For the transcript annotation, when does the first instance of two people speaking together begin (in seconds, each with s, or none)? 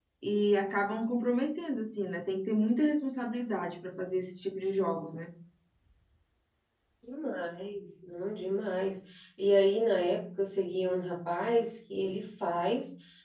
none